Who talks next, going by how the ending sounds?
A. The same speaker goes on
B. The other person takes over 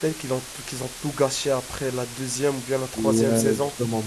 B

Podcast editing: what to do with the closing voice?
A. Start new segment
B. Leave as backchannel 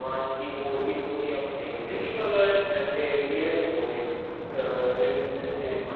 A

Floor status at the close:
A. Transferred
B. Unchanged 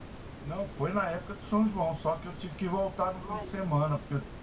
B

